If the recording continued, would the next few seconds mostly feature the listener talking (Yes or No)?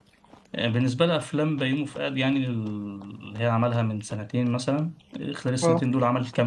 No